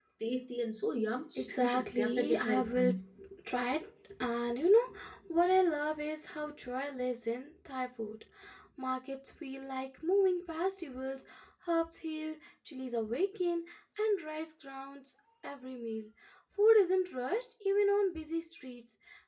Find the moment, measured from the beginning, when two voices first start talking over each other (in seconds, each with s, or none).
1.4 s